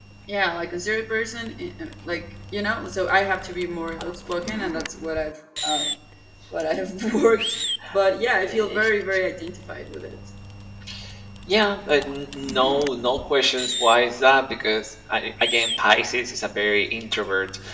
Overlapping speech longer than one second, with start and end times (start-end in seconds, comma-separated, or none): none